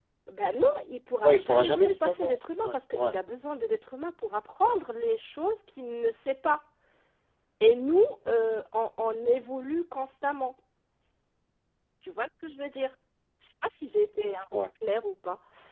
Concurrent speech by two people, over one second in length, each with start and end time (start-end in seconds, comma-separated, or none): 1.2-3.1